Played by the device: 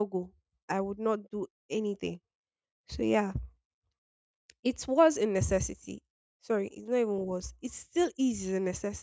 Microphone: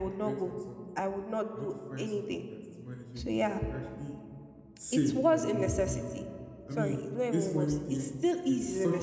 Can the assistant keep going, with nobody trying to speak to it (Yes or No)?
No